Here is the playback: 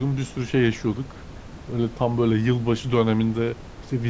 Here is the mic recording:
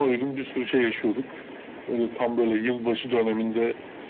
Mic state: echo only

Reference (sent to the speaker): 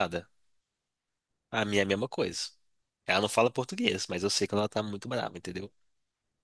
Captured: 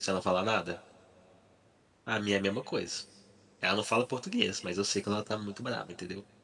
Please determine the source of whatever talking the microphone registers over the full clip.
echo only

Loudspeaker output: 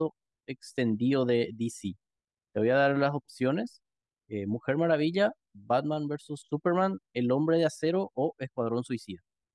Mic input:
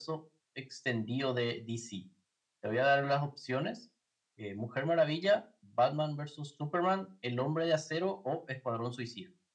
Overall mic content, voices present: echo only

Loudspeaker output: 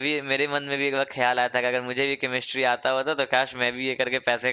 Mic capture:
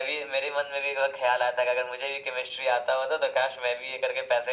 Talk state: echo only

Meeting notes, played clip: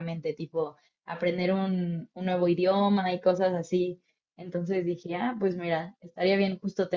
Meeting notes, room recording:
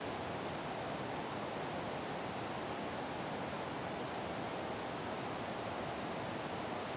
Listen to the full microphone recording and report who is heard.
neither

